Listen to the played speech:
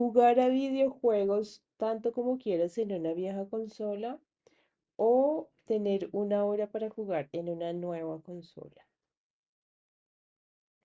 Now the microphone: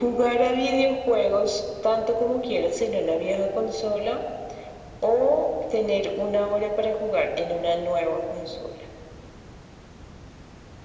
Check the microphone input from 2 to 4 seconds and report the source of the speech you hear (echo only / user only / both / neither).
echo only